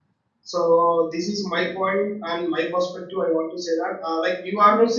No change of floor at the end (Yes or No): No